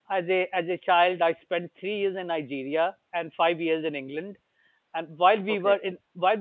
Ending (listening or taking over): listening